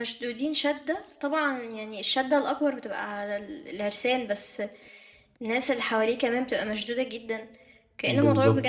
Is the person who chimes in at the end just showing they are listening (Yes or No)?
Yes